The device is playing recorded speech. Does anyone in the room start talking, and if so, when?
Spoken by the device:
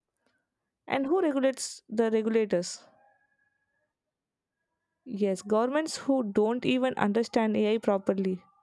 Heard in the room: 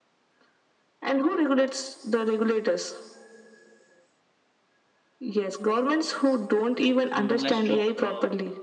7.1 s

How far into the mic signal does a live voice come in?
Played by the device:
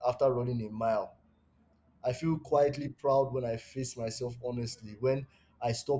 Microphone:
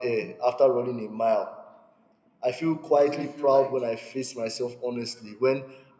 2.8 s

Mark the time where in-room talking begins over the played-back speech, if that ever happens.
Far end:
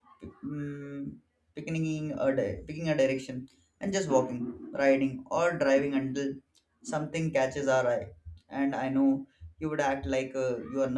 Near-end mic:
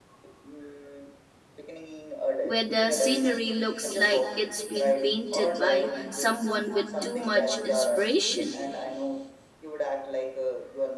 2.4 s

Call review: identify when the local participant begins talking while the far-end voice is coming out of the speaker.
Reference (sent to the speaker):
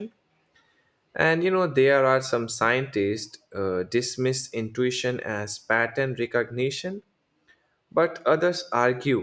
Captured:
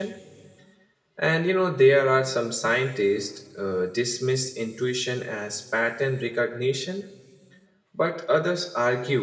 none

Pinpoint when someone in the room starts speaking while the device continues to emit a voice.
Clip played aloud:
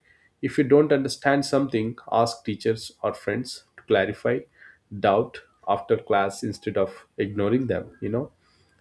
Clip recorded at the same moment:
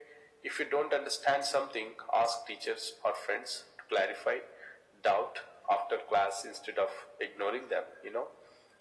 none

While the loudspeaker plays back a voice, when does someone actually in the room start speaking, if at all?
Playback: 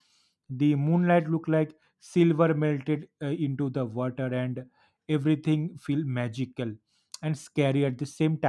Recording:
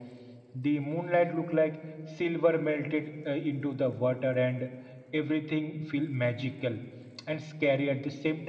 none

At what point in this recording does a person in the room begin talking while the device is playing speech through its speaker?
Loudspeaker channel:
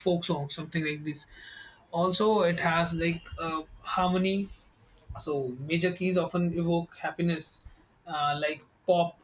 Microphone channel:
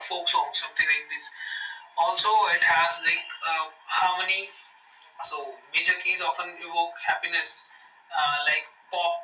none

